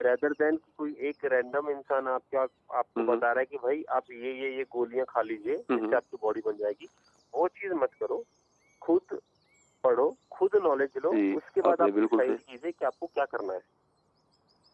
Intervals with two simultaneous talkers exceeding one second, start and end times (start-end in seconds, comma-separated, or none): 11.1-12.4